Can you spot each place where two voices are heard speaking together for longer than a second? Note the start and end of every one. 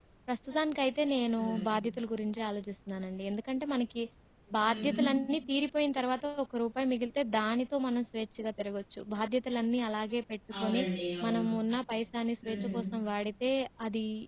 none

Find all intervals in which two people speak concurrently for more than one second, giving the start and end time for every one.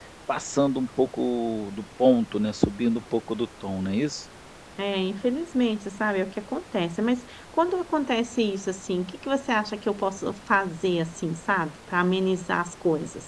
none

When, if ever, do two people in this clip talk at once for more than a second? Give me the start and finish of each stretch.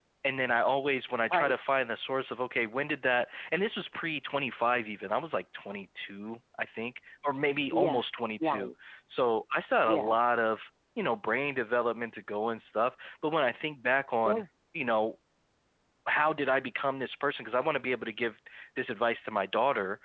none

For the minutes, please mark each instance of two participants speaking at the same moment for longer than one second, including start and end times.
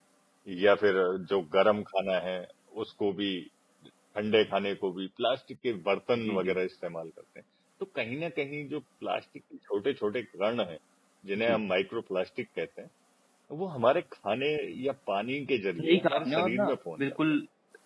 15.8-17.1

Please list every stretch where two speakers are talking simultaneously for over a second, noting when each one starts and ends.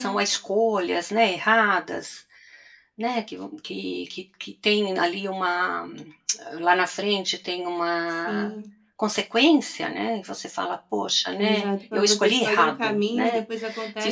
11.4-13.4

